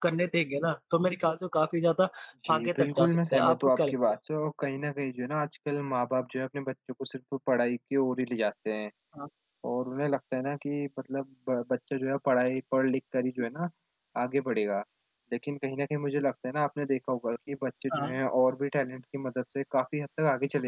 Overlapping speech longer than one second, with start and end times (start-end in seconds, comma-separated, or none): 2.5-4.0